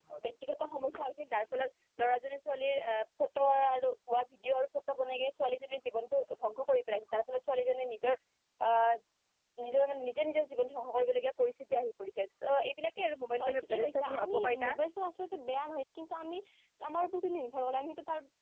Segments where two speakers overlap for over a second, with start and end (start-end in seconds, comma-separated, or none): 13.4-14.7